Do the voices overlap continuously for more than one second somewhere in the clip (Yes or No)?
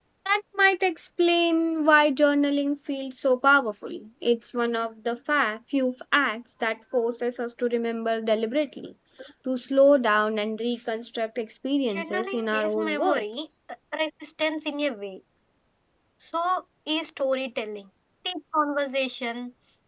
Yes